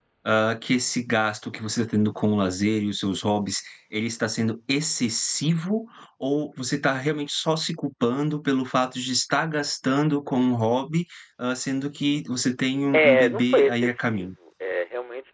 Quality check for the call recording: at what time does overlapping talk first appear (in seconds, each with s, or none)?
12.9 s